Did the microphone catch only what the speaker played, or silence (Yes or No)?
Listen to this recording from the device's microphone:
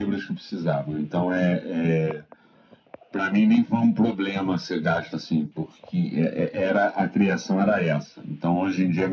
Yes